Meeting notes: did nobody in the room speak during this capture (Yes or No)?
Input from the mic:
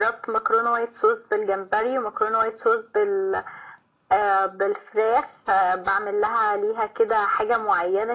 Yes